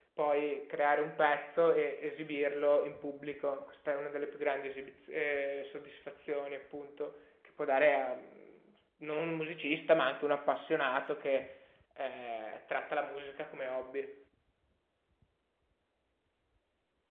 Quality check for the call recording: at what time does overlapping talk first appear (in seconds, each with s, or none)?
none